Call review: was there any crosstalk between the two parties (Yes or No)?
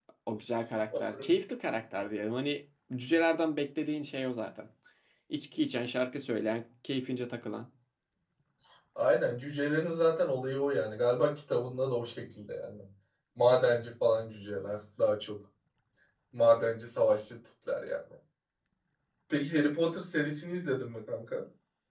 No